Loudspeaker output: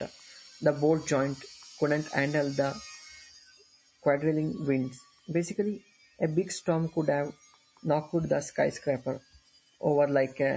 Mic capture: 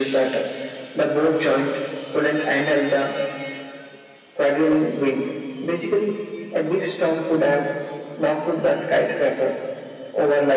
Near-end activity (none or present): none